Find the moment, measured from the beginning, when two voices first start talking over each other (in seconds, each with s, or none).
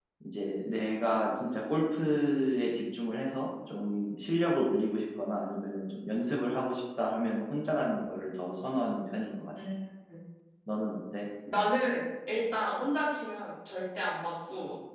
none